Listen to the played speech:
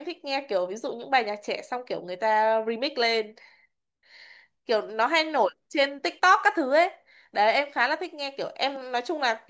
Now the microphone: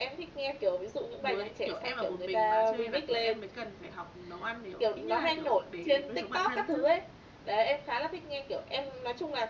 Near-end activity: present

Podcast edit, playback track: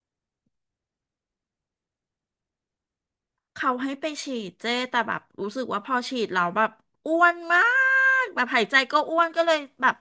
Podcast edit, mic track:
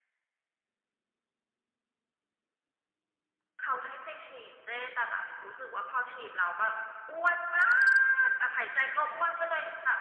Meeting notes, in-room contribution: none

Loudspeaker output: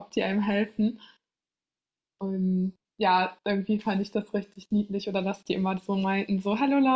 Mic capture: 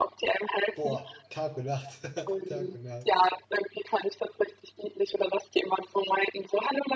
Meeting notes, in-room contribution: present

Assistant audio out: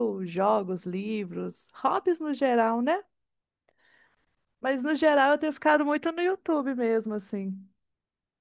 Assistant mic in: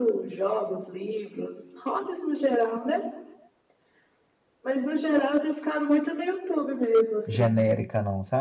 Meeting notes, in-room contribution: present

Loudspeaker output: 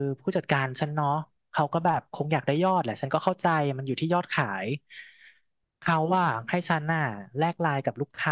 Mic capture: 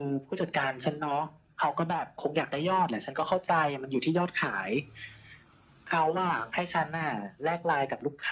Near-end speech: none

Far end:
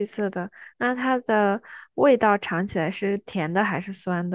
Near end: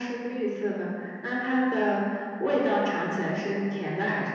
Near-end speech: none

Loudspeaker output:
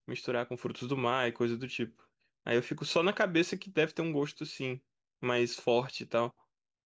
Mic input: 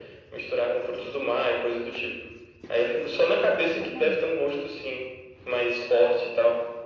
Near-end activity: present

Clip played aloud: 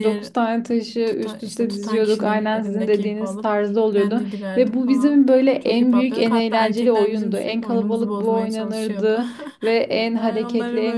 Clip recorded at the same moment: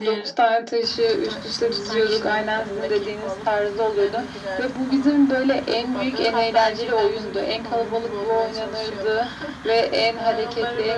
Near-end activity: none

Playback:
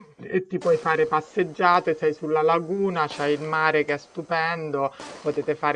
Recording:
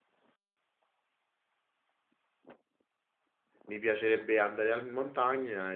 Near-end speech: present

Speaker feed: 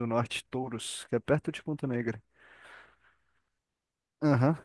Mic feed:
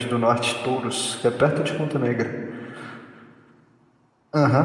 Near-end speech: none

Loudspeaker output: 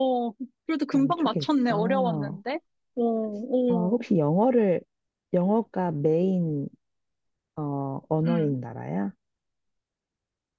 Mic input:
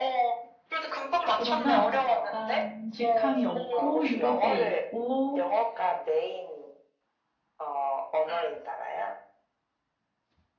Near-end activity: present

